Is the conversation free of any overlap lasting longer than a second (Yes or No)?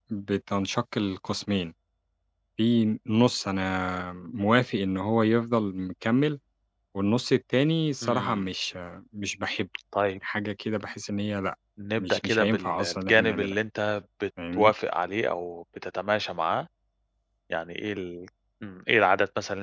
No